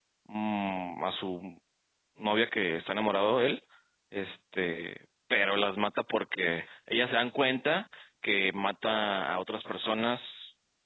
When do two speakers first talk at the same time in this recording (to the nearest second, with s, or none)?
none